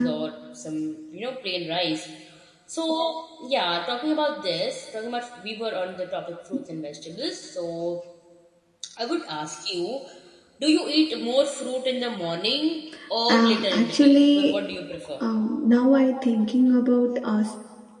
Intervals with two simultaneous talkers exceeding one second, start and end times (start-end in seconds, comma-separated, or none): 13.3-14.6